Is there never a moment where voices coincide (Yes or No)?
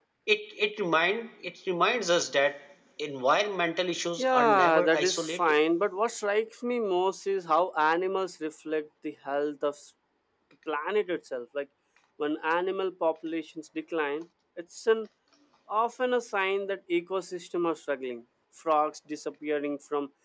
No